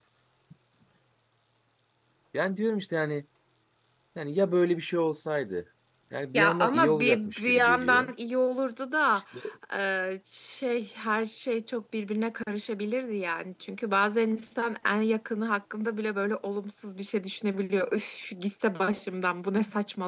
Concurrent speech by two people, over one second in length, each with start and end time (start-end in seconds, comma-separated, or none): 6.3-8.1